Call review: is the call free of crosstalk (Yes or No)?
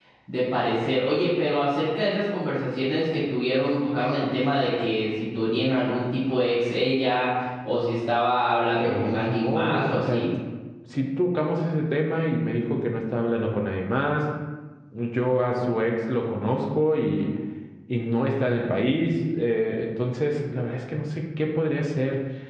No